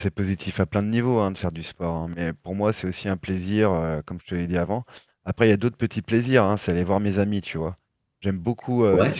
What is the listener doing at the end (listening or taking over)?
listening